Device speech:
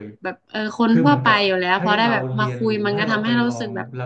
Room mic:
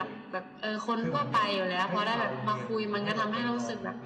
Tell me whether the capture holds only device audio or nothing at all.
Yes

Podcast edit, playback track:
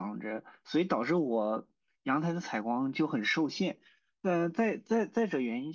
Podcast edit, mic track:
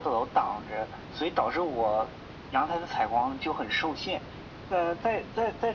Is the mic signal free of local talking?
Yes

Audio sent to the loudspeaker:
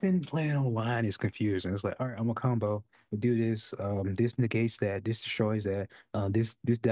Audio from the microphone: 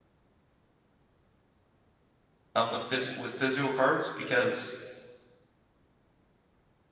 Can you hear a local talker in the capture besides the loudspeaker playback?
Yes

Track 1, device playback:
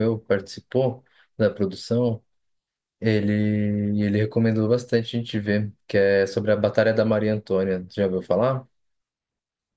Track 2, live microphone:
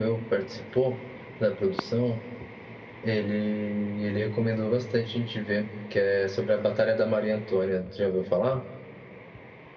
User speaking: No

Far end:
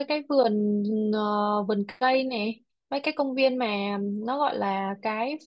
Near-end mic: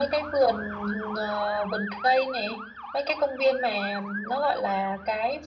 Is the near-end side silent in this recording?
Yes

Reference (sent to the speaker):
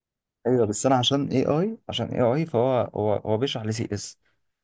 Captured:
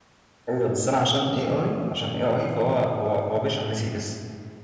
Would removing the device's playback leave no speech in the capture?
Yes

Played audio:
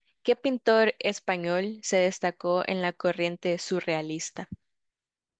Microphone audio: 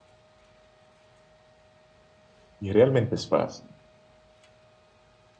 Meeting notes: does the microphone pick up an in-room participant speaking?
Yes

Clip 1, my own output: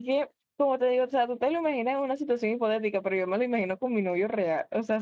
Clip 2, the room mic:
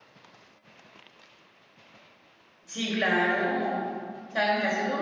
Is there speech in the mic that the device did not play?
Yes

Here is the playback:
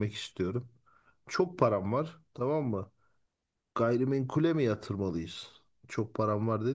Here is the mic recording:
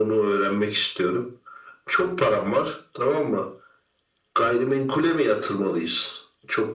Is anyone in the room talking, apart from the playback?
No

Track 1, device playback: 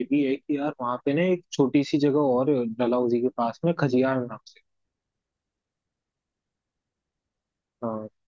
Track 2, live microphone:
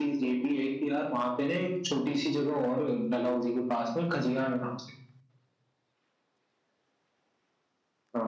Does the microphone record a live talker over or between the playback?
No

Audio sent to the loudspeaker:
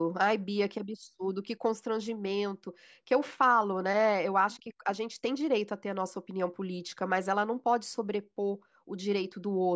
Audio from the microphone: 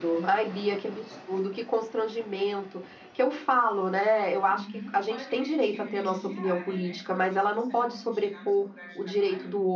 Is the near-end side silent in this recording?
No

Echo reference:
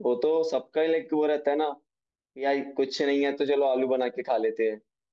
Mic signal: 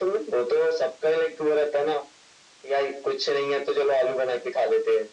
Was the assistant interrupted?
No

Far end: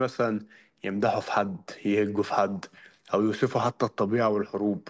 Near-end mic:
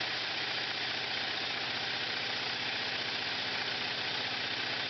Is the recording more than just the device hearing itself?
No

